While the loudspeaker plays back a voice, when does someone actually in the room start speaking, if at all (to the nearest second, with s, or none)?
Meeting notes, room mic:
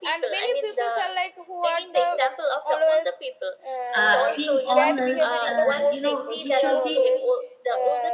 4 s